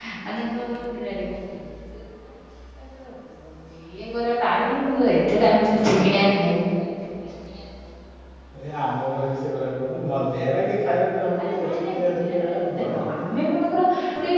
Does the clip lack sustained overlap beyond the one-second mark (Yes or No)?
No